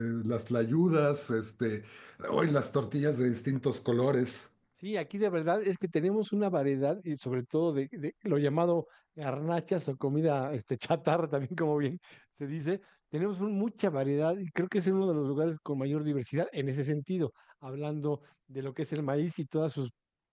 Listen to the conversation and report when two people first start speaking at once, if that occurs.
none

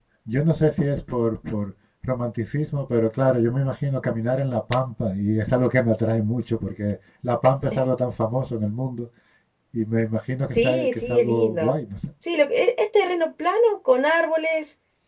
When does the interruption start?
10.6 s

